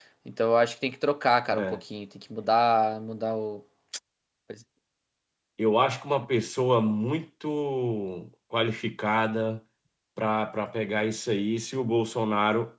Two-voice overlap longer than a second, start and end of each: none

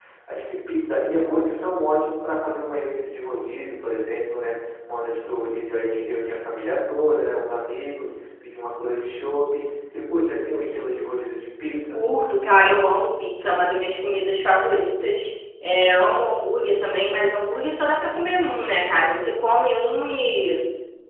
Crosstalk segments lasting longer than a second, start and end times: none

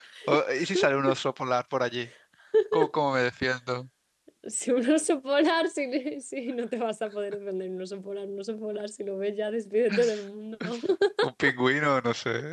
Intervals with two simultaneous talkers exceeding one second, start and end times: none

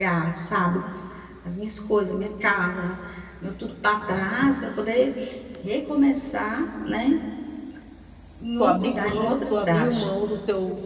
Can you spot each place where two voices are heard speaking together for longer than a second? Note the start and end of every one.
8.6-10.0

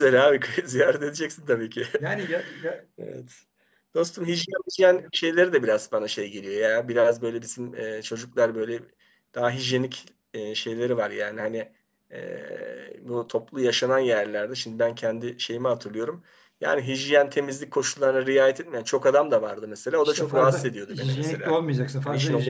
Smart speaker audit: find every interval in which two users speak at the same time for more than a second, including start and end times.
20.0-21.5

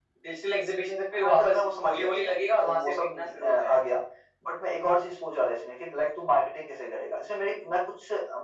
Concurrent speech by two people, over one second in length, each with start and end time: 1.2-3.8

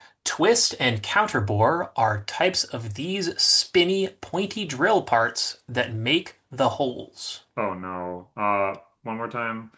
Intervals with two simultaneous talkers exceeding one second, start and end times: none

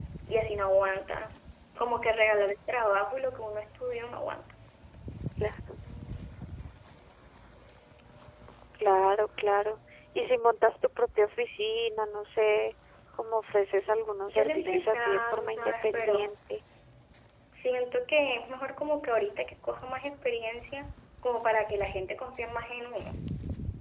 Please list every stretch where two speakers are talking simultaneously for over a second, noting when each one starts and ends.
14.3-16.4

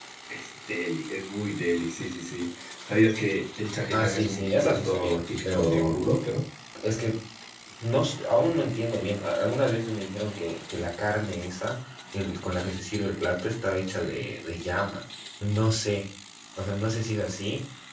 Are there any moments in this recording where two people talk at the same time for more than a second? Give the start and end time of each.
3.9-6.0

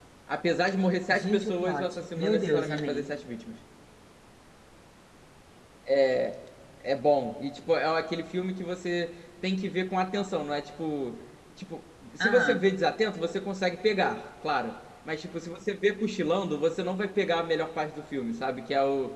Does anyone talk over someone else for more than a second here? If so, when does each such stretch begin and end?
1.1-3.1

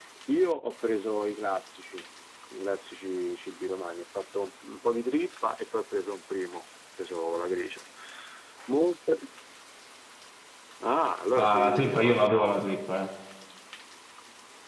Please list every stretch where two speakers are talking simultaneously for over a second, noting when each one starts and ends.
11.4-12.8

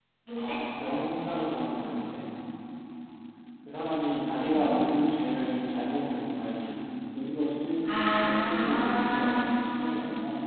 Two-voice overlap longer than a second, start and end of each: 8.0-9.4

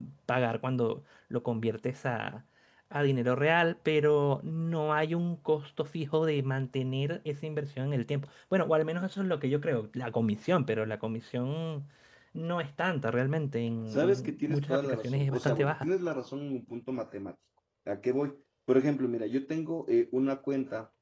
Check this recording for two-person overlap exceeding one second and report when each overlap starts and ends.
13.9-15.9

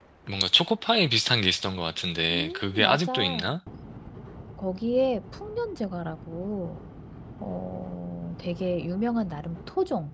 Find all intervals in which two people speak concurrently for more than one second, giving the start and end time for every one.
2.3-3.5

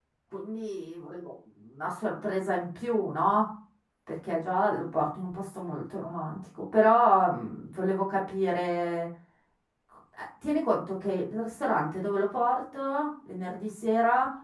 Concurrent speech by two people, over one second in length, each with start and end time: none

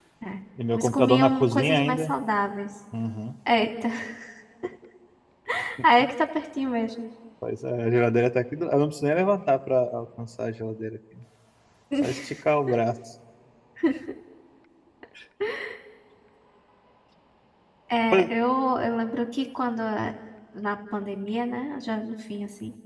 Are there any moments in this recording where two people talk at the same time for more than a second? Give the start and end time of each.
0.7-2.1

